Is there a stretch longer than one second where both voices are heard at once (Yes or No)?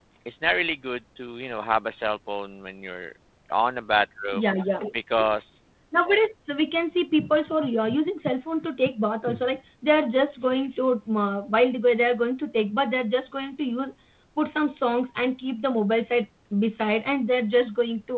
No